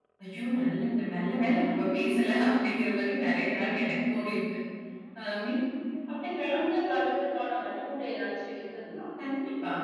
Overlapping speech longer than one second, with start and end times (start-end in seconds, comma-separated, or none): none